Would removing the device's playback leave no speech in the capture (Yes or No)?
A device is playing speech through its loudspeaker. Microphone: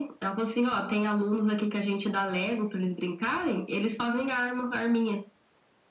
Yes